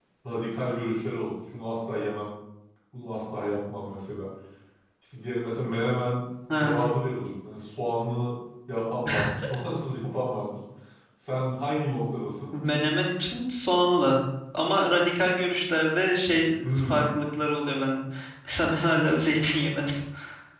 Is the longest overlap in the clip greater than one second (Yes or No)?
No